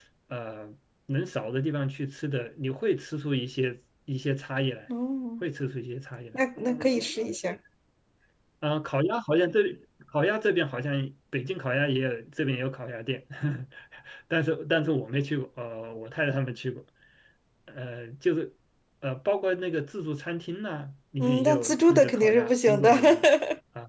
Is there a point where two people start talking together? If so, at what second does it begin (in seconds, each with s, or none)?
21.2 s